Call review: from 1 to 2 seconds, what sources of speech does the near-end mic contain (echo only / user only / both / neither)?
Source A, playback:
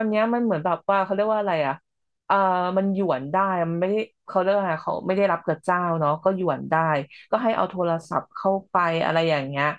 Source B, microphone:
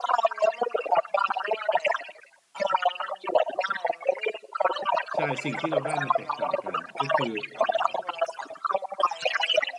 echo only